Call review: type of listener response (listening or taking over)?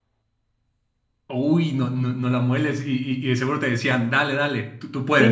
taking over